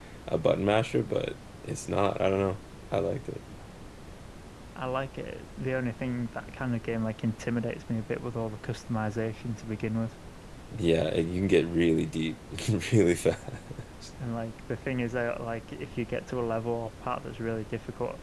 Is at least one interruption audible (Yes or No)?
No